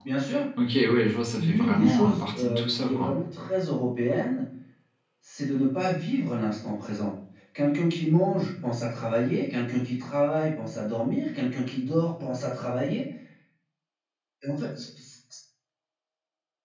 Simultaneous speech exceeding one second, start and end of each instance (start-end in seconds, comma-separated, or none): 1.4-3.1